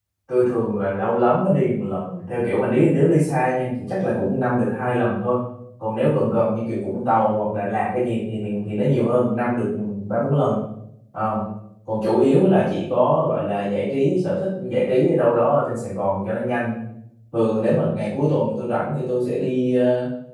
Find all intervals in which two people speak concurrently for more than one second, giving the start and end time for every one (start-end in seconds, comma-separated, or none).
none